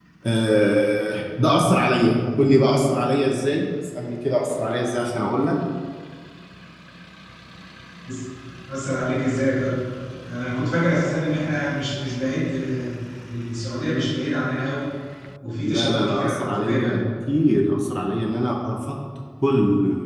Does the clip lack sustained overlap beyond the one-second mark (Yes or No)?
No